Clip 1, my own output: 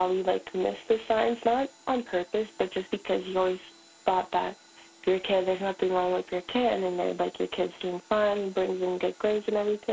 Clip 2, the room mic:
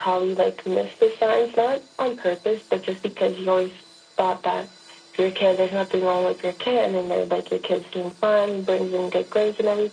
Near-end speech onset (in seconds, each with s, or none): none